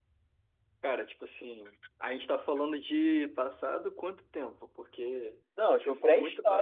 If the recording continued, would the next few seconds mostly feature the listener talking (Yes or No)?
Yes